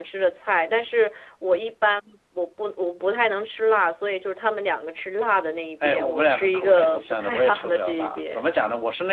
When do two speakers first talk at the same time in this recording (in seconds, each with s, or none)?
5.8 s